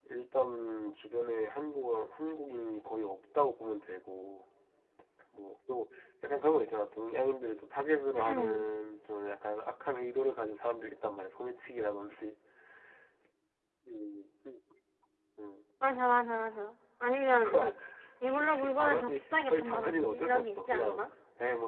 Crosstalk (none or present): present